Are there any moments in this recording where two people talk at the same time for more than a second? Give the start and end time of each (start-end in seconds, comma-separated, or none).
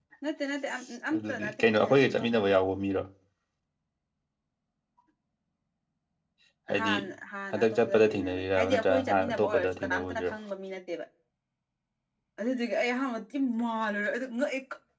1.2-2.5, 7.5-10.3